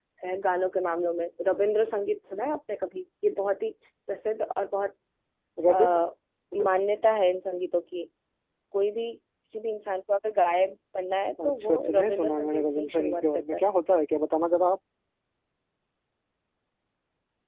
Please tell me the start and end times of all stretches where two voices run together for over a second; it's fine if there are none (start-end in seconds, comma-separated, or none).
11.4-13.6